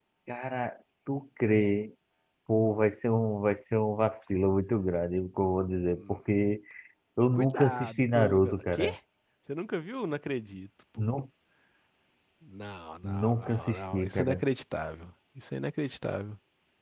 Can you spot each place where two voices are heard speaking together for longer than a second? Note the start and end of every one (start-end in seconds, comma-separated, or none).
7.3-8.9, 13.0-14.4